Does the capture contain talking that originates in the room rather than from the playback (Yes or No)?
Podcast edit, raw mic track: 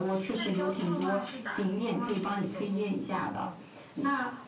Yes